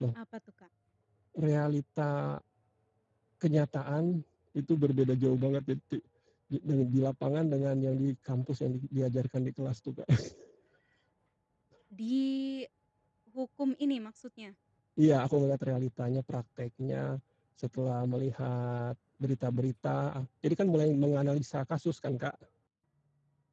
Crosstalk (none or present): none